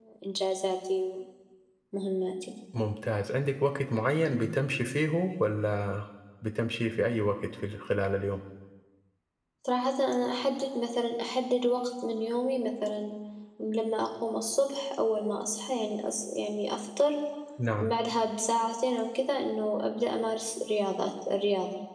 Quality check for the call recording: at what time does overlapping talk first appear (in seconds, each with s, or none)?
none